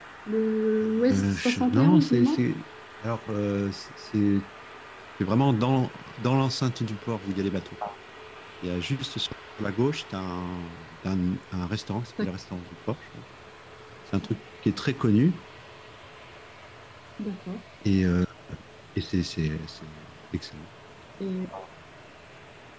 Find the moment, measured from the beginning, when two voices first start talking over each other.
0.9 s

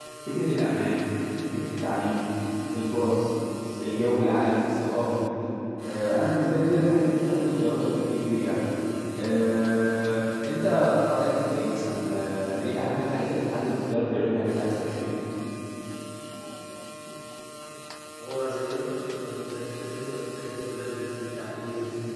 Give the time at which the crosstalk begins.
none

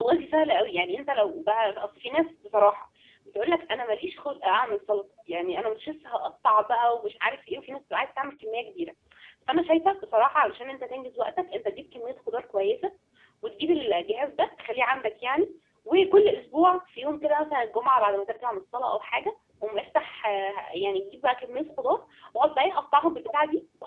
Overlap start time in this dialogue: none

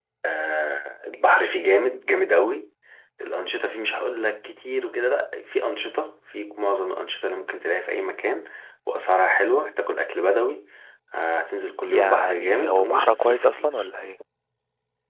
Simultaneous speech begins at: 11.9 s

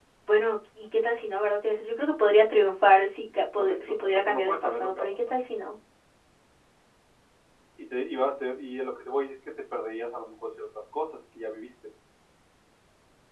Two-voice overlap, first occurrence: 3.5 s

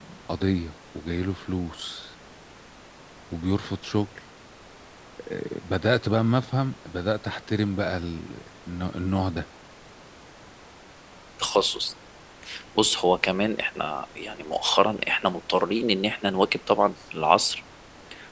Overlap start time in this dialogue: none

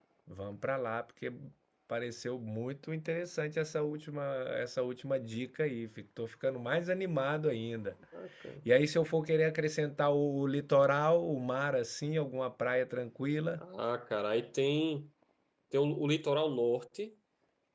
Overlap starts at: none

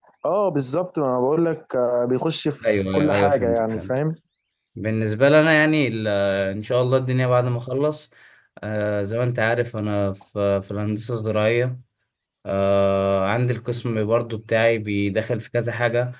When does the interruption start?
2.6 s

